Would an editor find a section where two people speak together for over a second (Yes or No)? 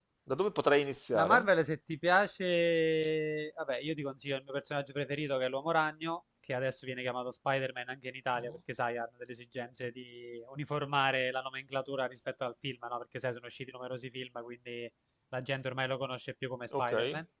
No